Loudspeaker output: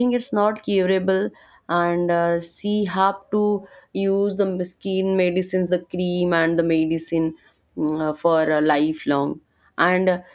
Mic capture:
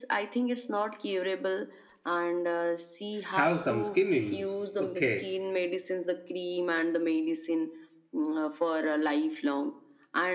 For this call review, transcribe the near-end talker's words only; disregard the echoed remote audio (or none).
have some skin issues. Okay.